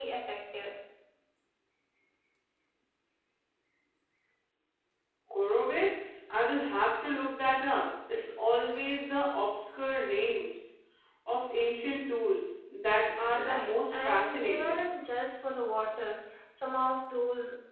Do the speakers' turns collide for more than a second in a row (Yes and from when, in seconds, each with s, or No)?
Yes, from 13.2 s